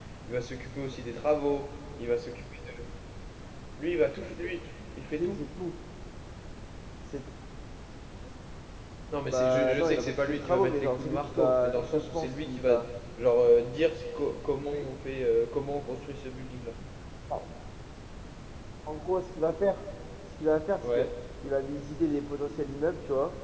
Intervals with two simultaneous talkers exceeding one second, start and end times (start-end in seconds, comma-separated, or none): 9.3-12.7